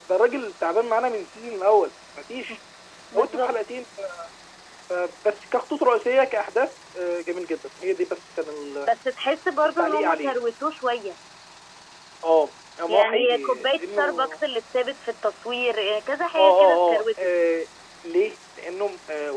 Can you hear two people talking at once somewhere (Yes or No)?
Yes